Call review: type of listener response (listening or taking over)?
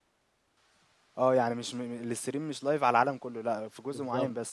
taking over